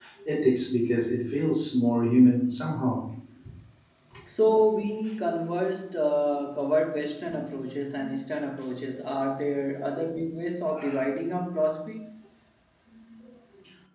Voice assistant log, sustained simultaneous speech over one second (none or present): none